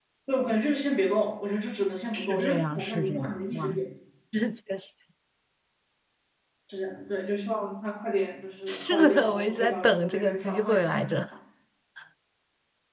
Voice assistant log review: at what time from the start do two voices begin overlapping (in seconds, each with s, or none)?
2.1 s